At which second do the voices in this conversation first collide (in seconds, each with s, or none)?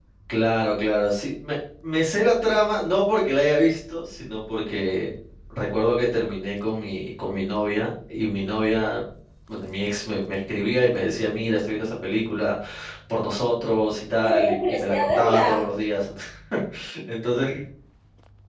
14.2 s